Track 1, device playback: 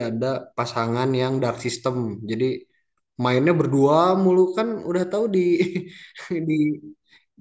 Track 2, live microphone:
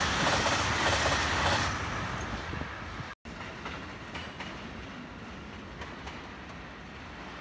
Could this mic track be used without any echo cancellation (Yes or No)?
Yes